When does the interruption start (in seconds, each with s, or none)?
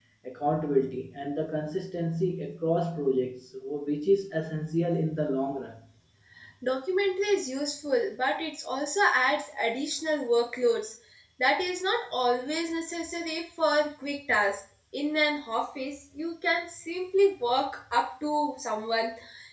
none